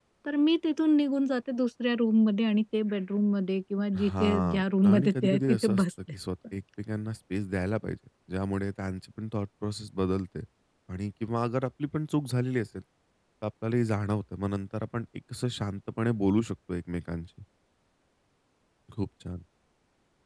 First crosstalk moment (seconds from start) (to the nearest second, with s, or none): 4 s